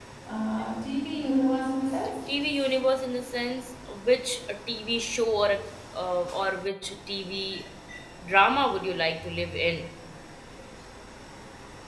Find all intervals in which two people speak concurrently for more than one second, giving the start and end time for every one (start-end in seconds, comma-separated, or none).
none